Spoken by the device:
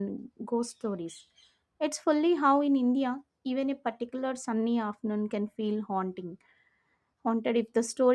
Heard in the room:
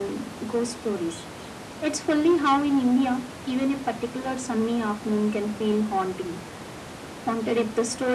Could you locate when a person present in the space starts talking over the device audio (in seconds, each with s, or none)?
none